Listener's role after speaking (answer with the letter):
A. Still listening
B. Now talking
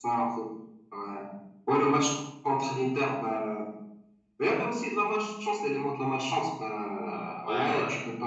A